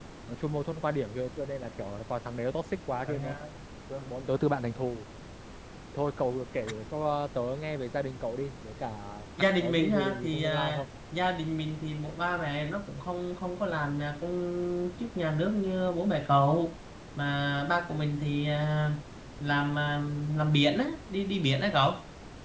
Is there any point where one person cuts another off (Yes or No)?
Yes